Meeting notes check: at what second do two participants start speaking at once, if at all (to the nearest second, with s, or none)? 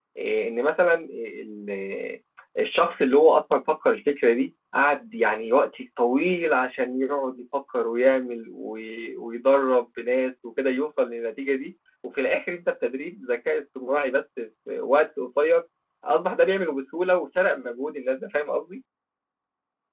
none